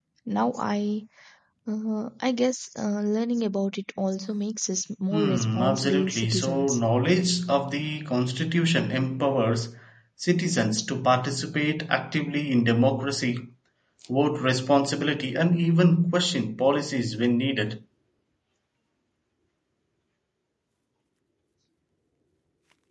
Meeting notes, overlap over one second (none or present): present